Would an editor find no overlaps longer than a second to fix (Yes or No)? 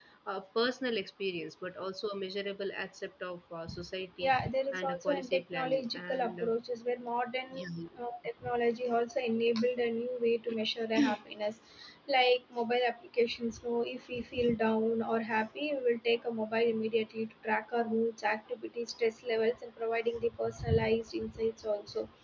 No